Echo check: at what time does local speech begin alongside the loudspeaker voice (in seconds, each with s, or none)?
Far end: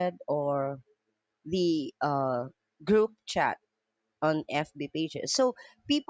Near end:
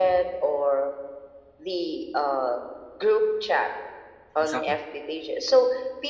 4.4 s